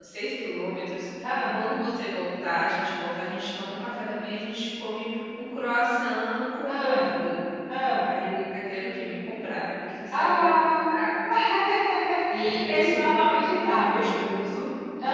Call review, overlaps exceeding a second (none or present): present